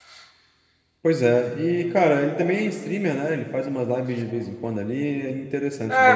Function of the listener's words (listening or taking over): taking over